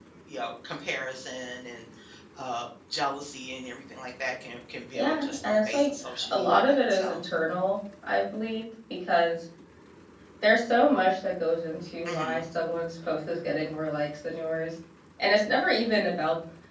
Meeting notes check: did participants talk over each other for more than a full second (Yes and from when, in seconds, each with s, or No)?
Yes, from 4.9 s